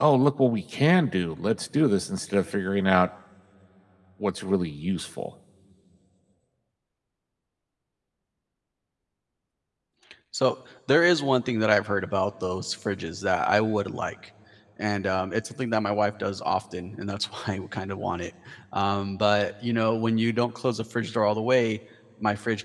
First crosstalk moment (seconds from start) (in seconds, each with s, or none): none